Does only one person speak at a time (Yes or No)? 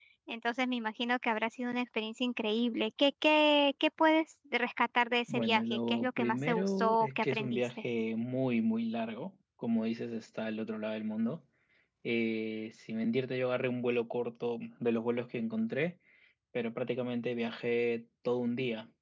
No